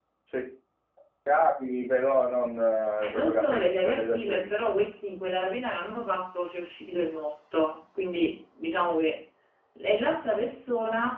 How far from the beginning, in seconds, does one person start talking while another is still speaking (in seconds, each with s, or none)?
3.0 s